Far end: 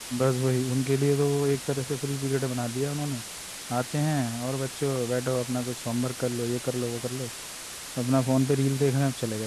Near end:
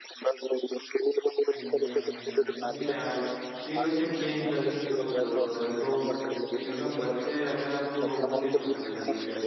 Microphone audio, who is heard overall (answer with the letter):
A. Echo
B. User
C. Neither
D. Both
D